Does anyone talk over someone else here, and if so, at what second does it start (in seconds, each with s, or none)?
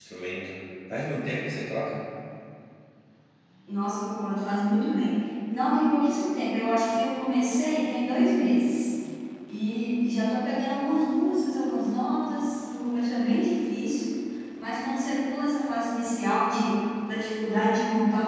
none